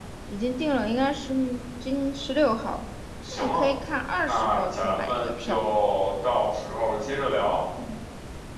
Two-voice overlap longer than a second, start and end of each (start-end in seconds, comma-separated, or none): 4.2-5.7